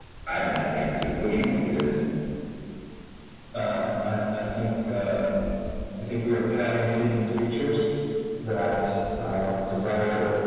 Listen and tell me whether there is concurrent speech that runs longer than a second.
No

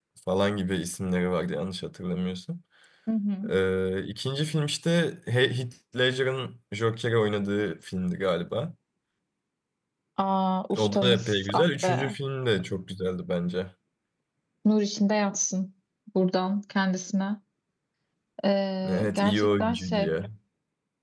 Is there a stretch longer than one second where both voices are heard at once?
Yes, from 10.8 s

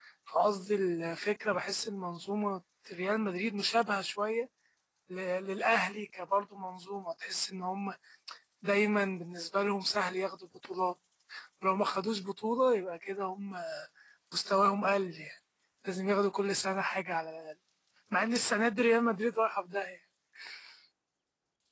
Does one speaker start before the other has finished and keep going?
No

